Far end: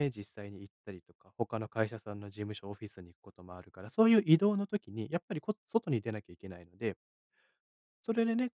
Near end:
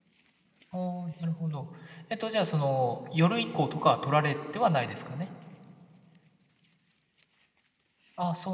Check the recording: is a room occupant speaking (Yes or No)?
Yes